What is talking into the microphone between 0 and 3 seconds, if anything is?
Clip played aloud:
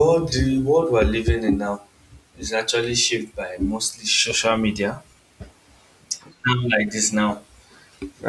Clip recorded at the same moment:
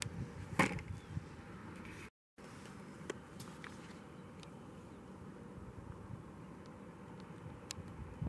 neither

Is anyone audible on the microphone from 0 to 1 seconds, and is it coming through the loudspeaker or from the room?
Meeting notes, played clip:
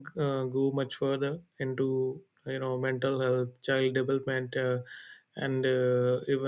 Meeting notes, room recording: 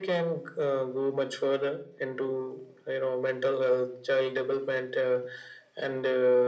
echo only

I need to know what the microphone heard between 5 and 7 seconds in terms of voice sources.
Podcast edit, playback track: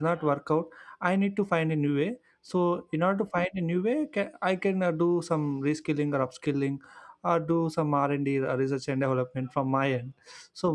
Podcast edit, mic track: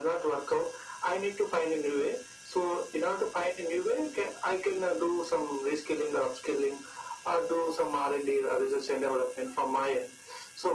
echo only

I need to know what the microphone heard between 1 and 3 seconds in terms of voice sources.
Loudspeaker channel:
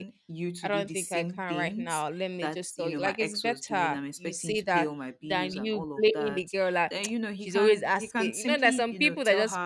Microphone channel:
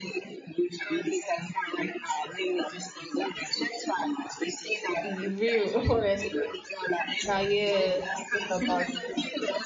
echo only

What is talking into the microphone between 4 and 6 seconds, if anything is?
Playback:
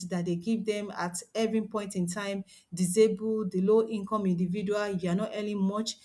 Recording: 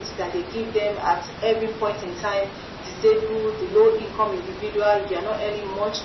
echo only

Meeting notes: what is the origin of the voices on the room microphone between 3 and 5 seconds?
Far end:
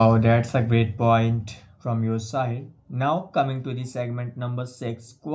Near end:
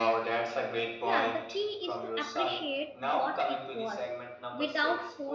both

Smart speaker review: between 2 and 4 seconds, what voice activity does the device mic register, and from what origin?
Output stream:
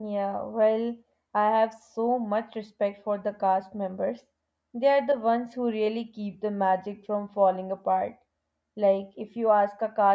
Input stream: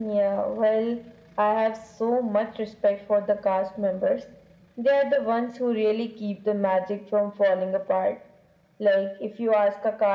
echo only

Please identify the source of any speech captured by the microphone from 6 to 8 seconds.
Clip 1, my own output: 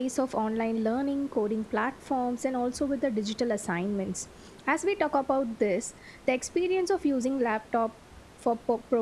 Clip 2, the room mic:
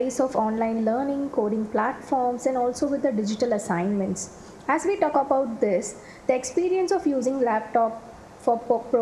echo only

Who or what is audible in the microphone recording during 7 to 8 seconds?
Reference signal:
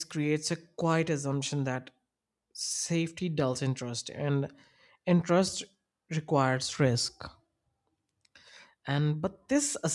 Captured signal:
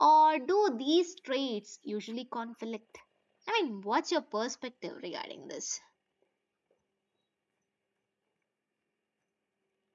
neither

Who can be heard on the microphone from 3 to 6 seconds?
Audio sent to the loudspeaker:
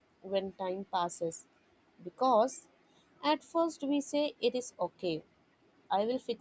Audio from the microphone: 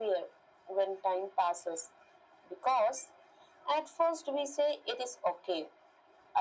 echo only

